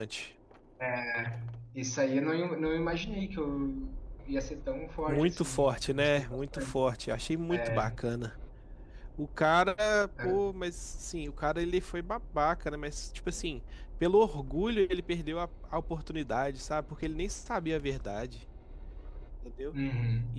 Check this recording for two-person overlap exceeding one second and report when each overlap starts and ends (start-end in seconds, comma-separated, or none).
5.1-6.8